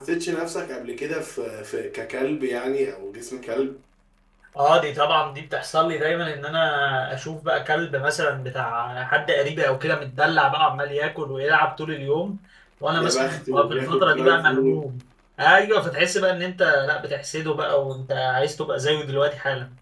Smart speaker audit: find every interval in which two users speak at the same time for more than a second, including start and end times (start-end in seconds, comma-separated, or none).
13.0-14.8